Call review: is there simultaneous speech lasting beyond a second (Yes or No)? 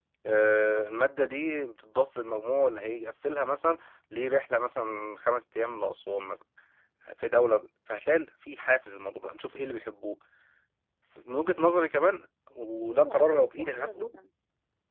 Yes